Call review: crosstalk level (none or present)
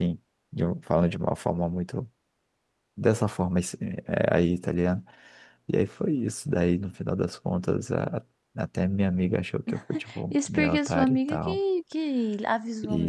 present